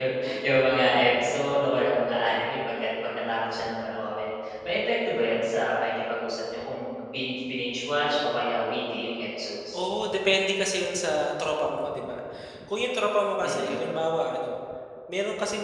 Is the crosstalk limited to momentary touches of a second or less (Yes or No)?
Yes